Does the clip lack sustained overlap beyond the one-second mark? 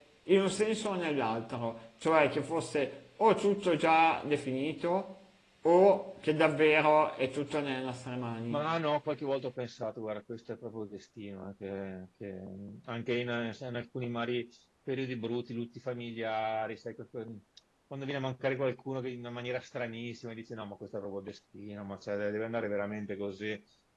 Yes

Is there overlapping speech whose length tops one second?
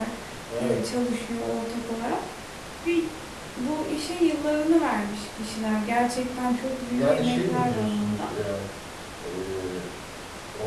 Yes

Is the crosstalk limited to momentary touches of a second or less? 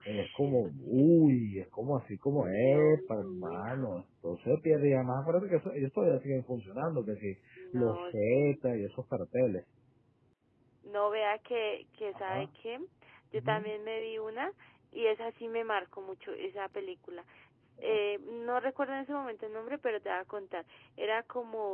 No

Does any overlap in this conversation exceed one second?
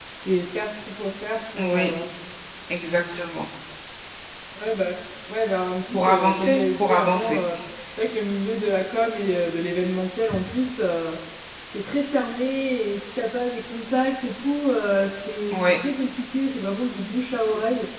Yes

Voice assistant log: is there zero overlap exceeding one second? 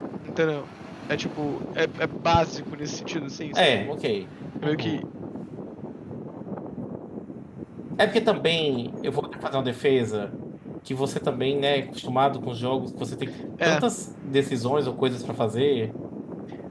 Yes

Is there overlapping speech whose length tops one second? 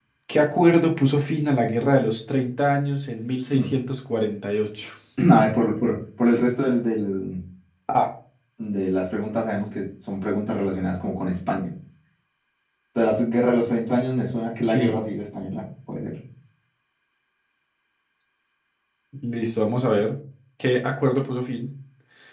No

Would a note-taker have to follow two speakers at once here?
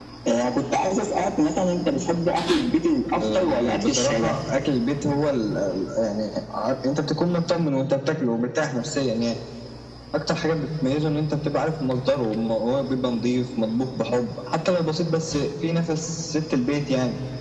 Yes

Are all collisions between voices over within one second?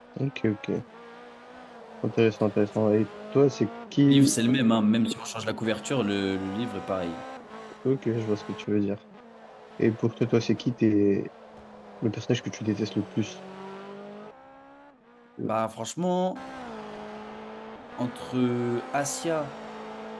Yes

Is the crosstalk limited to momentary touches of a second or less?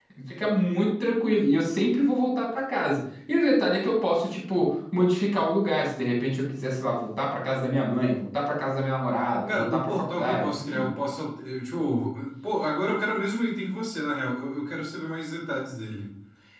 No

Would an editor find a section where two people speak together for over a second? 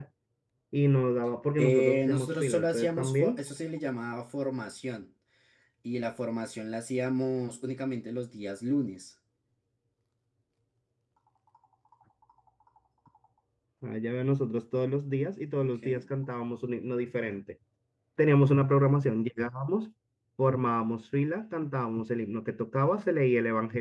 Yes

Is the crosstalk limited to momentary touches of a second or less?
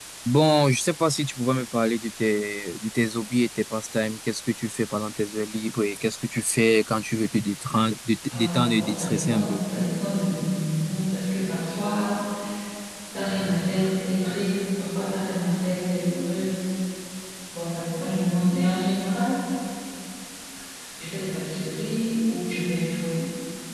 No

